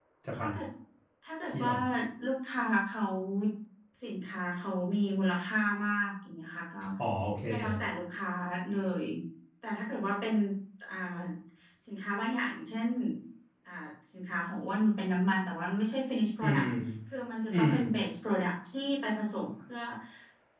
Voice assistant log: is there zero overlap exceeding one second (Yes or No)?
Yes